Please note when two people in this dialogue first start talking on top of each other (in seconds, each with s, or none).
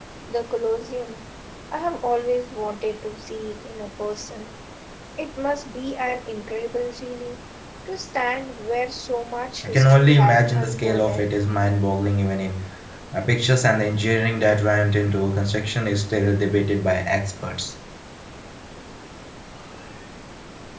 9.6 s